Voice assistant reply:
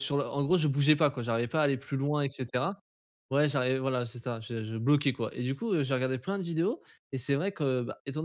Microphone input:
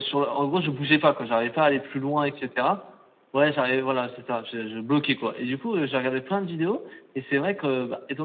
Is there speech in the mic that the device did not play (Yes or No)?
No